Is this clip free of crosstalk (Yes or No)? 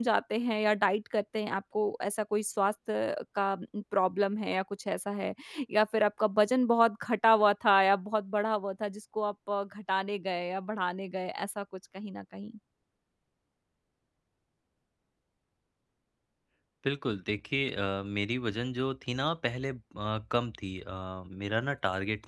Yes